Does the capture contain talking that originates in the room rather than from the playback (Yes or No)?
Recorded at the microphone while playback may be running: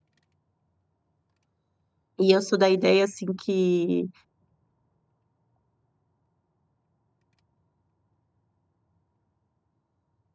Yes